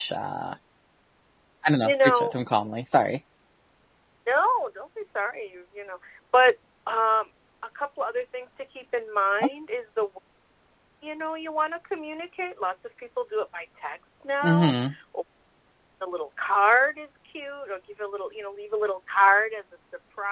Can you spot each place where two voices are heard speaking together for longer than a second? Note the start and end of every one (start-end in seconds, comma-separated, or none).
none